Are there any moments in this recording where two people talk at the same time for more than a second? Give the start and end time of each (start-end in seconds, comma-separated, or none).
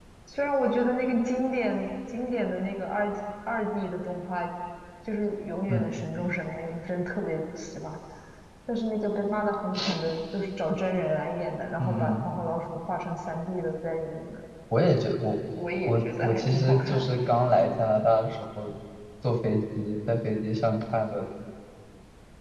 15.9-17.1